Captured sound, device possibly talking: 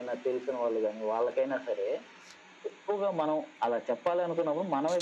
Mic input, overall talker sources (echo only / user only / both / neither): echo only